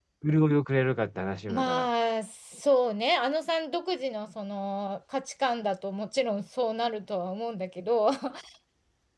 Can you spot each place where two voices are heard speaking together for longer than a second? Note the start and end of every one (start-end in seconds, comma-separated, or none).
none